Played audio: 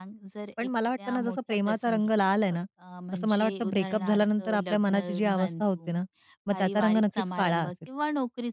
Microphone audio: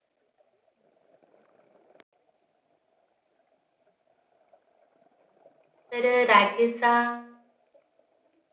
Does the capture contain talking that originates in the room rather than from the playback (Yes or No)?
Yes